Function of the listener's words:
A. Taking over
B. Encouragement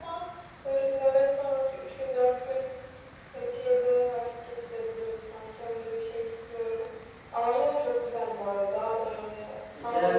A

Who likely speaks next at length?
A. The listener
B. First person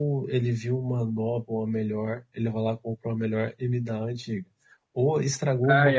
B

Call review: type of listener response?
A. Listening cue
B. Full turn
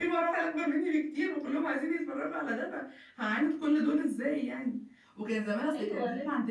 A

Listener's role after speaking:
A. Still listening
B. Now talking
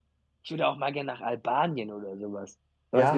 B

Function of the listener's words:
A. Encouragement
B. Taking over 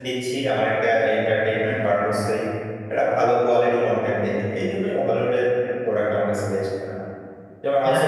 A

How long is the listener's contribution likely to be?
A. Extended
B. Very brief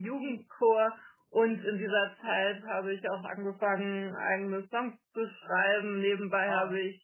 B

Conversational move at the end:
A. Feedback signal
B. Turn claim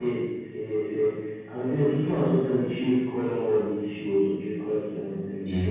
A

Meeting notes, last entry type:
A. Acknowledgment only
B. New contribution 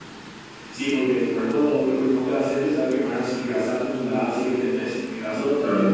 A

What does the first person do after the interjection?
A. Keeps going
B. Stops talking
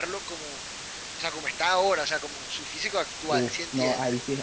B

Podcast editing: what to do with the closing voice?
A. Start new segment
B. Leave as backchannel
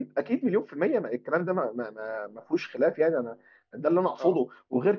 B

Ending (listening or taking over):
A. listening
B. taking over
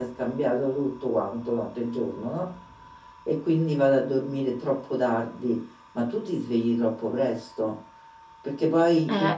A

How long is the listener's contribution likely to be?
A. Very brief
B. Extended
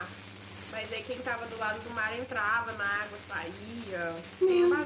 B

